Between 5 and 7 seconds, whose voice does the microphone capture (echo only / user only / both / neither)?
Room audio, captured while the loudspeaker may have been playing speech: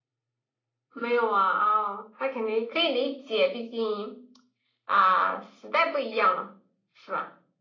echo only